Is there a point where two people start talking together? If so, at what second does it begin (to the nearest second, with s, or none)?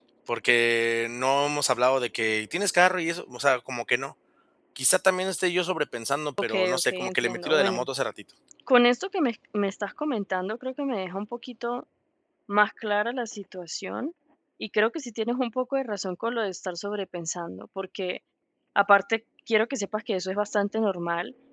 6 s